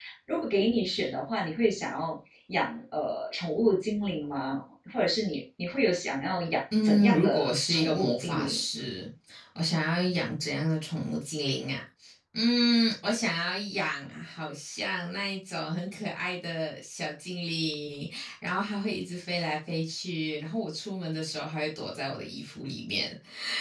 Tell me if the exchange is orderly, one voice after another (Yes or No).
No